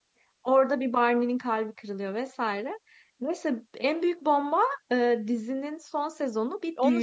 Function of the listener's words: taking over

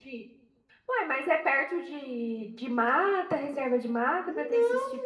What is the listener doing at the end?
taking over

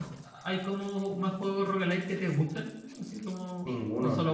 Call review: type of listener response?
taking over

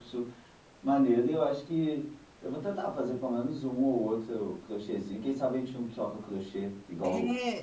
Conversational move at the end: taking over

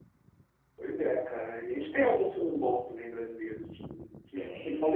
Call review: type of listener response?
listening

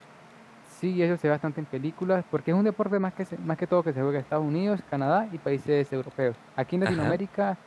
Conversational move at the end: listening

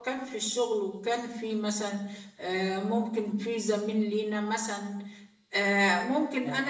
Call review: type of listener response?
listening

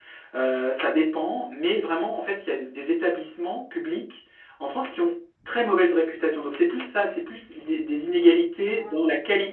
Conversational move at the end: listening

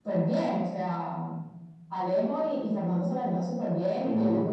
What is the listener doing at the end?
listening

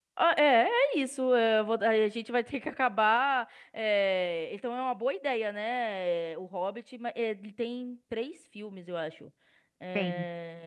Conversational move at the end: listening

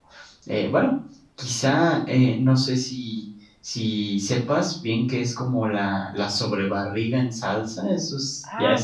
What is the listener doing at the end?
taking over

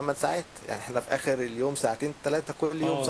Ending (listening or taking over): taking over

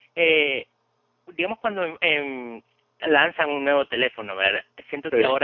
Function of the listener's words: listening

